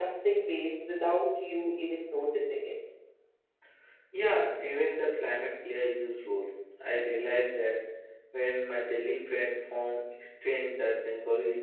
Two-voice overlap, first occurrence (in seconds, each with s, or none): none